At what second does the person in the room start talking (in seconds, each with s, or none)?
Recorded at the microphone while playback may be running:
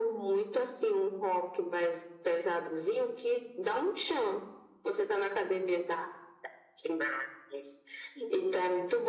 none